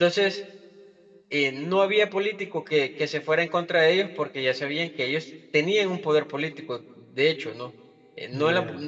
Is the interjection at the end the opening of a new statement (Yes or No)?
No